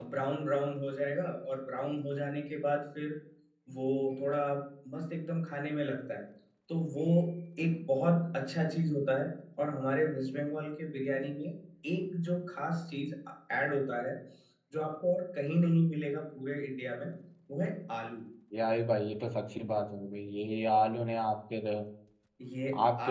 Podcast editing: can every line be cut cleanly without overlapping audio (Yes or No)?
Yes